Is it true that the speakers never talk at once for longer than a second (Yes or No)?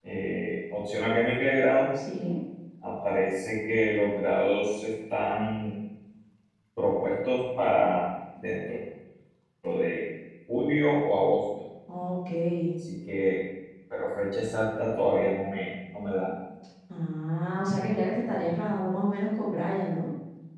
Yes